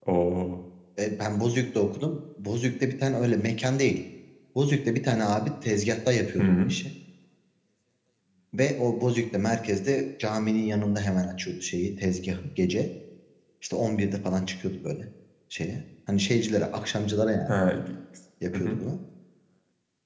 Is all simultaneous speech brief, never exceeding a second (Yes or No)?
Yes